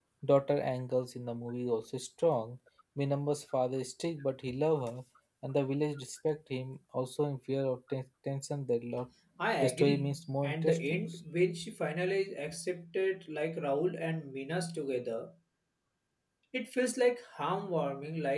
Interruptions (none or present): present